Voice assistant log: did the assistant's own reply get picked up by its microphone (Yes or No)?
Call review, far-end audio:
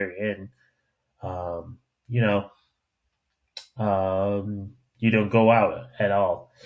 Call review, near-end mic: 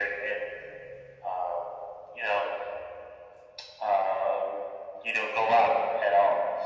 Yes